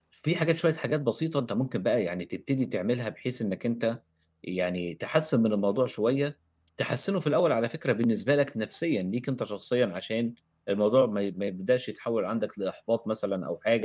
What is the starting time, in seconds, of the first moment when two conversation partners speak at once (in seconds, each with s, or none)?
none